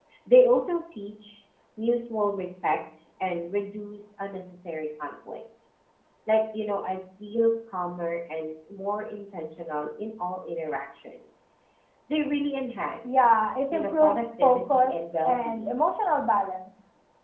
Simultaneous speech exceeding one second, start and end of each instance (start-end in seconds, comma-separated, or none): 13.7-15.7